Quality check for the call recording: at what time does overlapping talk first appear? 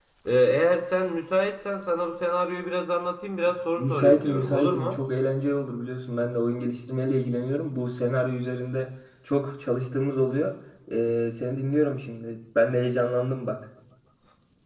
3.8 s

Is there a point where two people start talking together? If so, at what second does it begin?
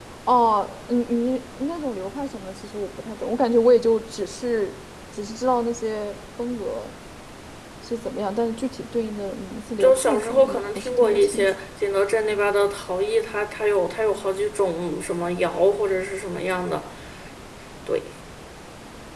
9.8 s

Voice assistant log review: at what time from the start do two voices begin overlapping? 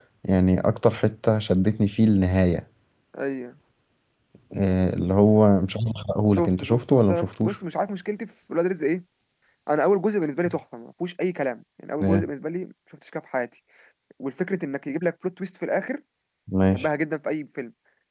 6.4 s

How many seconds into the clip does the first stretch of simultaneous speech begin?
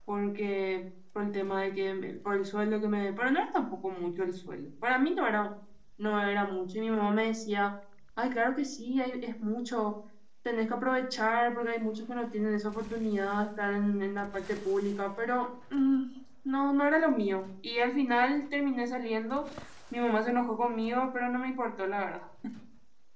none

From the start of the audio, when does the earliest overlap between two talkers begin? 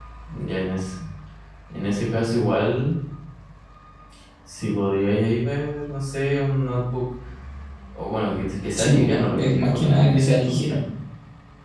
8.8 s

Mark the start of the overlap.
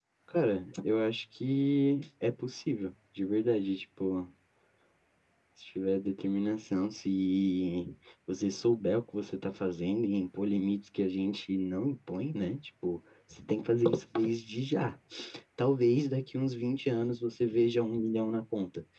none

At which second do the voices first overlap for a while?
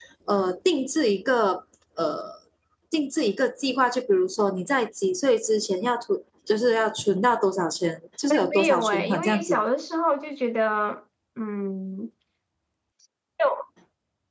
8.2 s

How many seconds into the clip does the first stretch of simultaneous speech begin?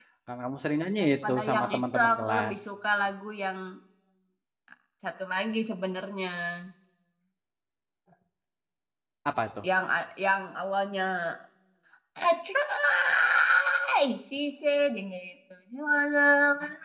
1.0 s

